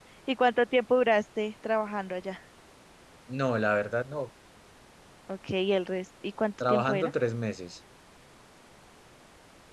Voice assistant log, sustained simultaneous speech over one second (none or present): none